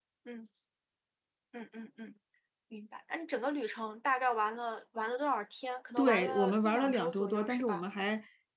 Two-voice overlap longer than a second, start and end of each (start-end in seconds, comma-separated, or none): 6.0-7.8